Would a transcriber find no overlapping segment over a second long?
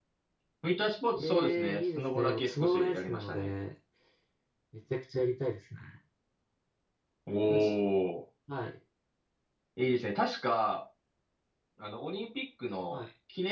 No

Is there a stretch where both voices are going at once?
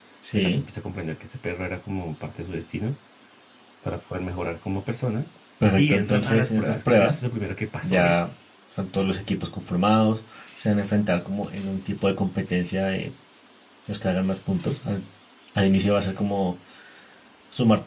Yes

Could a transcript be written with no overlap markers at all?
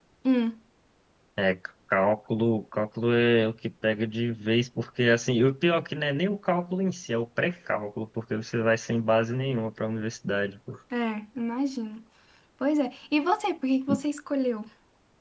Yes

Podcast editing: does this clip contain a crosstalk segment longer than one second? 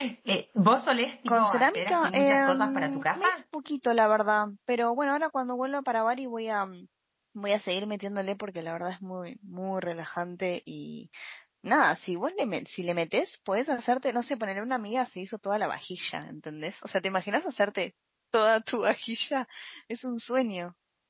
Yes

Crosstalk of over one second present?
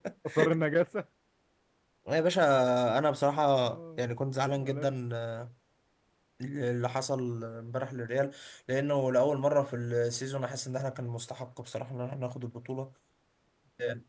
No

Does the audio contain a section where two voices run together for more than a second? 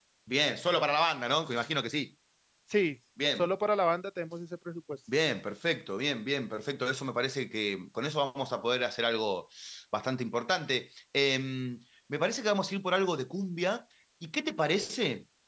No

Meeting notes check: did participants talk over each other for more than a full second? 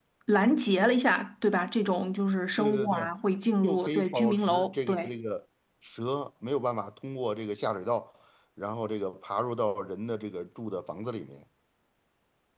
Yes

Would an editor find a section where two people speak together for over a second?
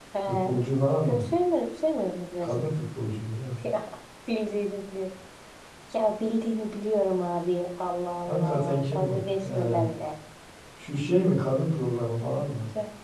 Yes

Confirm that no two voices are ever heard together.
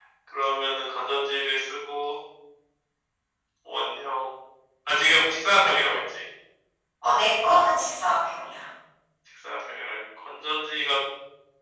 Yes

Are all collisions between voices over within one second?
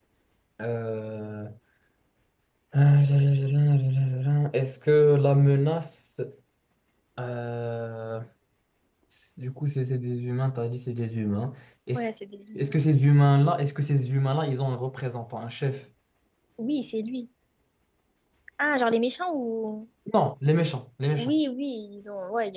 Yes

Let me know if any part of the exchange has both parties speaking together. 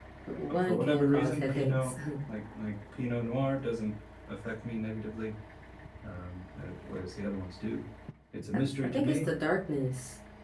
Yes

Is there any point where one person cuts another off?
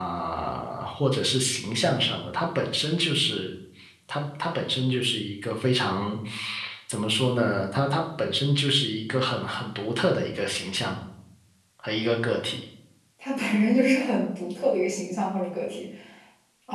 No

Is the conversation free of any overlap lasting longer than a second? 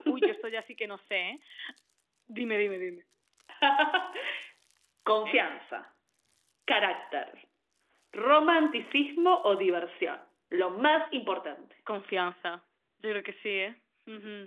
Yes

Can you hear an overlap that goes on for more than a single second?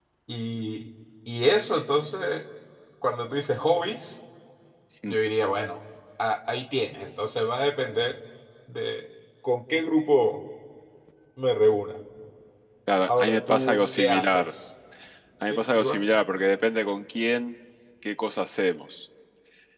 Yes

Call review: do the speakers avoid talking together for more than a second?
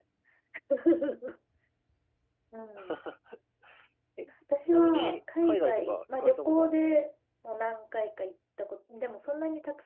No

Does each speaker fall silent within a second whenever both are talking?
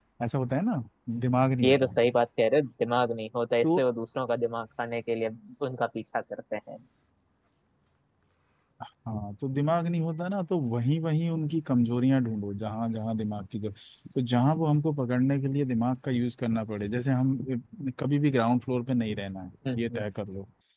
Yes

